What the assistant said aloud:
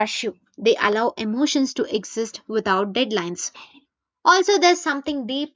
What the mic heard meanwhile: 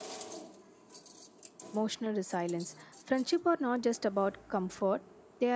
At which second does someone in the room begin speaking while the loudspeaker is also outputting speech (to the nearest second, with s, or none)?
2 s